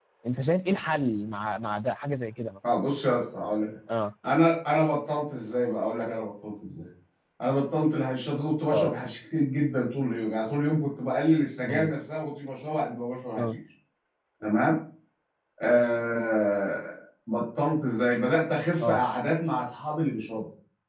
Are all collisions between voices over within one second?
Yes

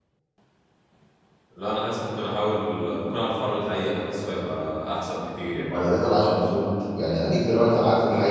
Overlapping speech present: No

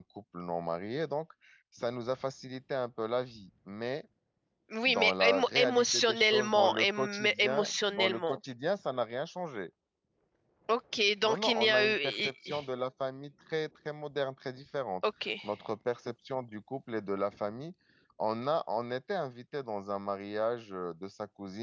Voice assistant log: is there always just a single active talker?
No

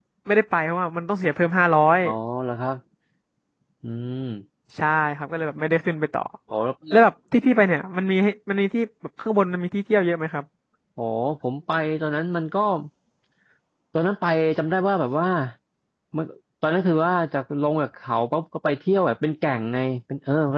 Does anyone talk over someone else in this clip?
No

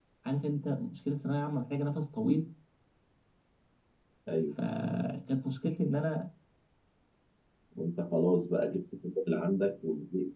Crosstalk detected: No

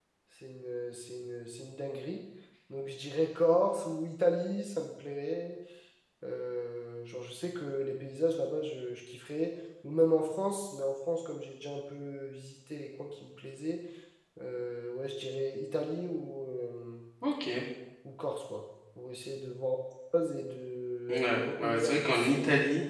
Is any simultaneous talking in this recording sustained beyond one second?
Yes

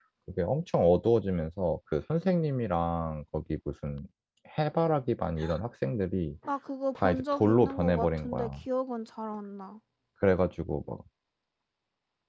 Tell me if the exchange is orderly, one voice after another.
No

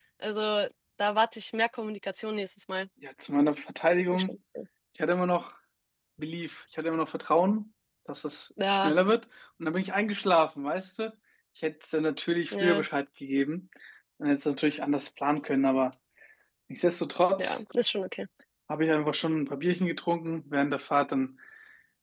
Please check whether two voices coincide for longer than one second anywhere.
No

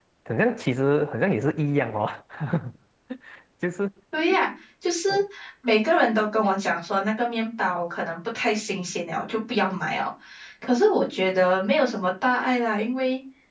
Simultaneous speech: No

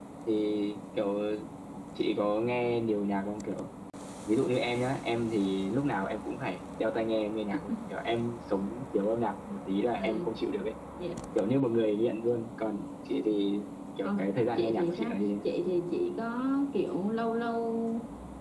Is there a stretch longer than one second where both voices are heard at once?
Yes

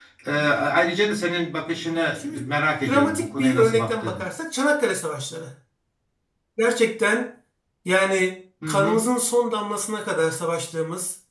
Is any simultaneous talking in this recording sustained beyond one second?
Yes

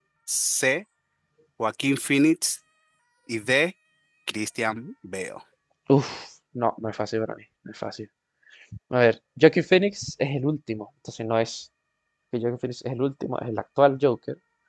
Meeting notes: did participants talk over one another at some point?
No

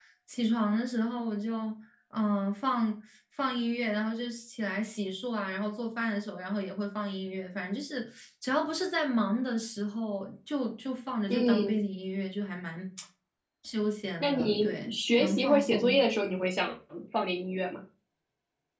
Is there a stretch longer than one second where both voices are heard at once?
Yes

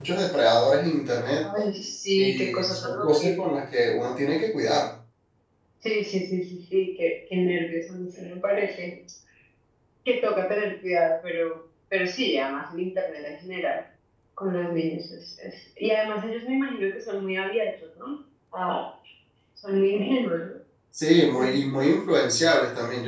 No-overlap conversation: No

